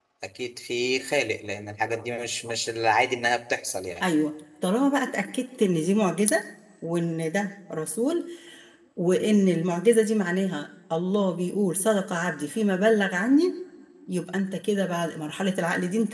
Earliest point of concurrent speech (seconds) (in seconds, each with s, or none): none